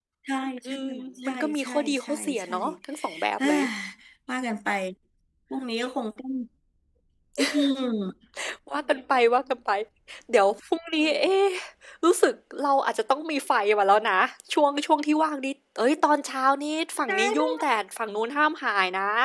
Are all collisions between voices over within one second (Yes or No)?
No